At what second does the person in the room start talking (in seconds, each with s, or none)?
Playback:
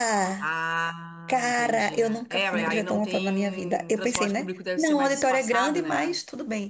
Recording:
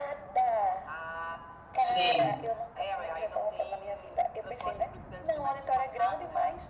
1.8 s